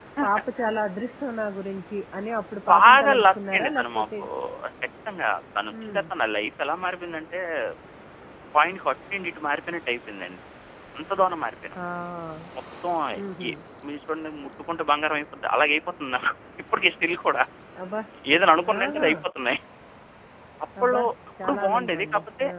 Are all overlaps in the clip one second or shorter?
No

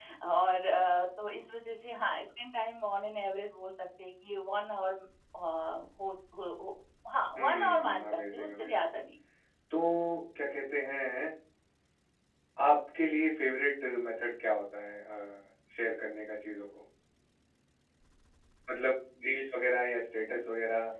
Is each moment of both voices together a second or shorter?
No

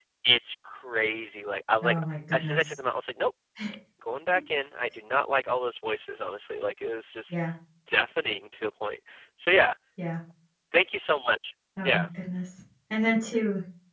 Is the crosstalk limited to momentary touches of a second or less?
Yes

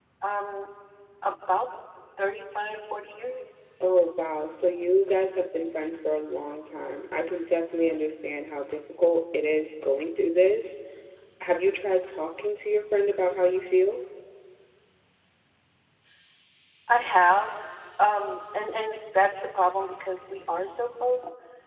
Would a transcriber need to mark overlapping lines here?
No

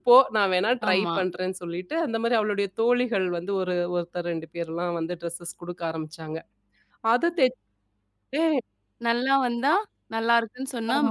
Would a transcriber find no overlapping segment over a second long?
Yes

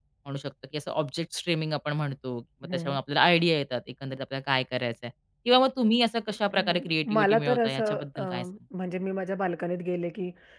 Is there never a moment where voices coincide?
No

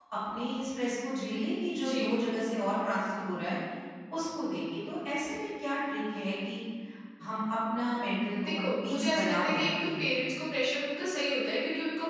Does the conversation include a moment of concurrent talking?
Yes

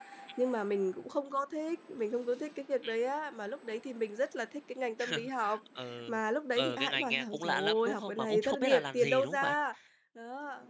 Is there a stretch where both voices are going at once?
Yes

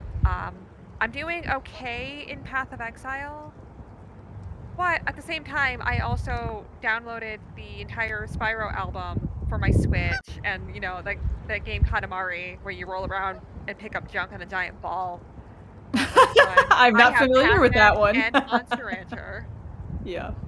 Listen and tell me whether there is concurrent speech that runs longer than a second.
Yes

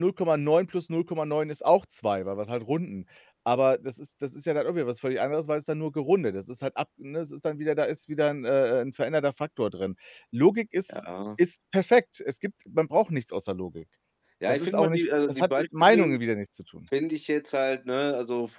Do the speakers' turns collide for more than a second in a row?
Yes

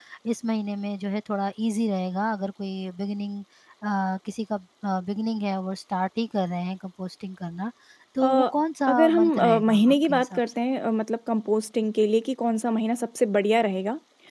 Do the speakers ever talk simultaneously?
Yes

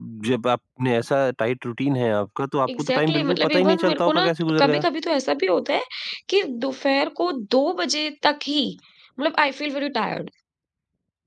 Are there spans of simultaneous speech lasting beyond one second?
Yes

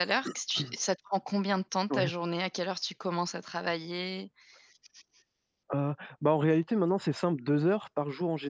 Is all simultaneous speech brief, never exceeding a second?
Yes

